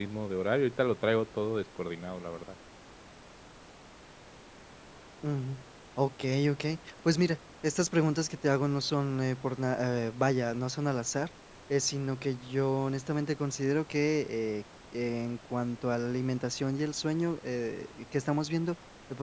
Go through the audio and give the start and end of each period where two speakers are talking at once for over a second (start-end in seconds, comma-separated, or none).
none